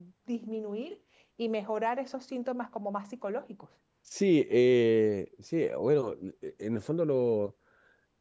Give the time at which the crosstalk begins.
none

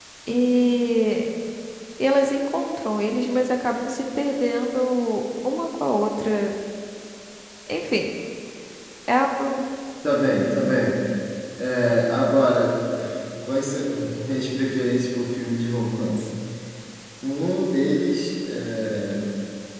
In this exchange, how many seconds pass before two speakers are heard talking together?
none

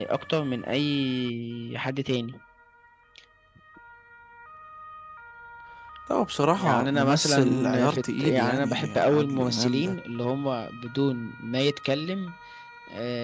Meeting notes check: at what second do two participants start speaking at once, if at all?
6.6 s

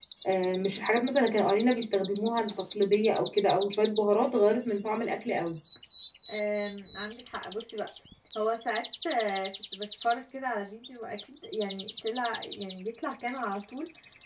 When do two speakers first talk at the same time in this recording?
none

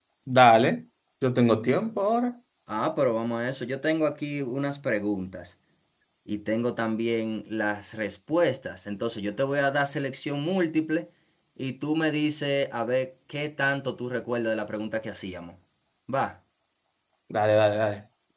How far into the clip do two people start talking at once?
none

